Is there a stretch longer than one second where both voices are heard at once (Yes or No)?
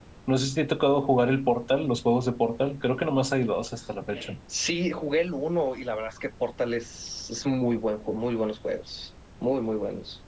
No